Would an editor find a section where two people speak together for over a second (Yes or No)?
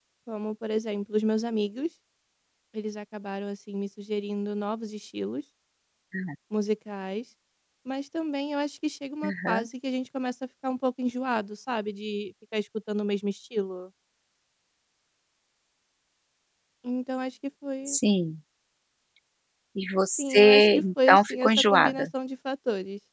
Yes